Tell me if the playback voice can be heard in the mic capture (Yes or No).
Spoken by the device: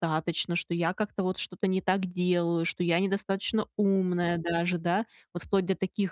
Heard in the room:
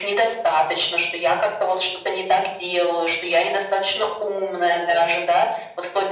Yes